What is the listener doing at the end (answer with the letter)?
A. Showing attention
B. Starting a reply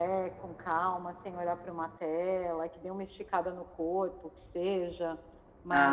A